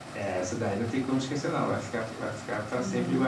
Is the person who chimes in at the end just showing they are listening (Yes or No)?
Yes